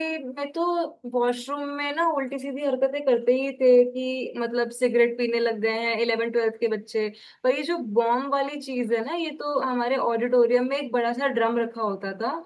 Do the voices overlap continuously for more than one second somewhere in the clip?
No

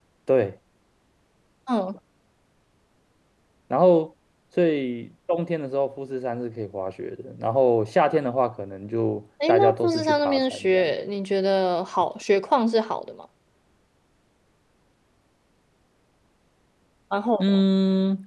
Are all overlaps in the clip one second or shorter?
No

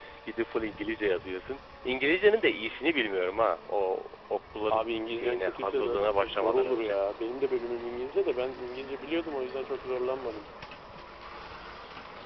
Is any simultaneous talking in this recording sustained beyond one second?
Yes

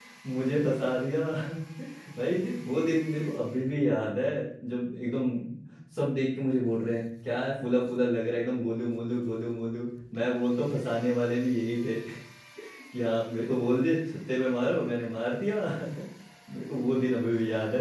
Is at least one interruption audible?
No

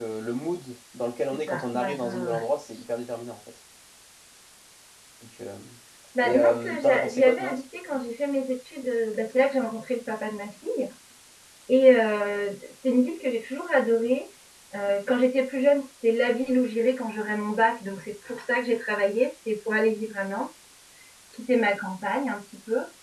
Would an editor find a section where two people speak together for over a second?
Yes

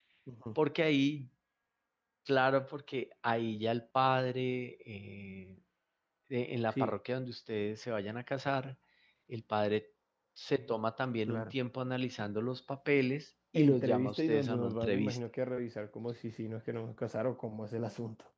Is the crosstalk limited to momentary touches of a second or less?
No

